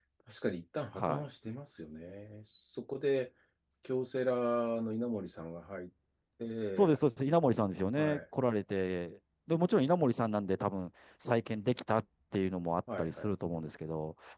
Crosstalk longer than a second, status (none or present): none